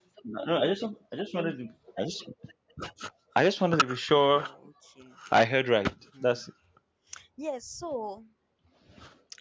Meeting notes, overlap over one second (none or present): none